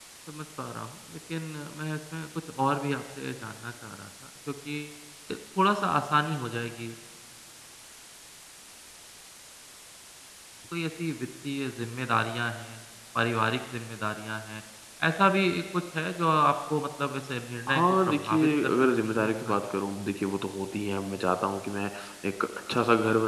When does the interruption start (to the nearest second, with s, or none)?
18 s